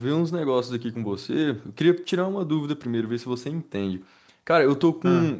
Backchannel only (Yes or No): Yes